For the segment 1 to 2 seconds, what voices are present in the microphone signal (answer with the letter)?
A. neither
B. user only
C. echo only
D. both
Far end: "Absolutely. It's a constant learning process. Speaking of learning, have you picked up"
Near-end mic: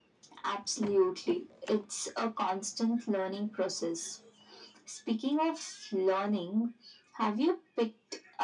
C